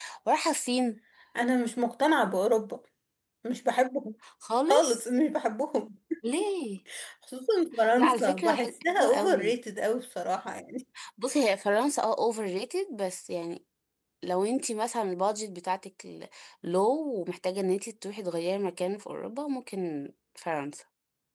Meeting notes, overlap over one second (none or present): present